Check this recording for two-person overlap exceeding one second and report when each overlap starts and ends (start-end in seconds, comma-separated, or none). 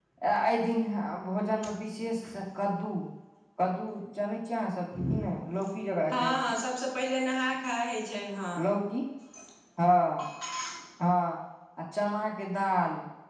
none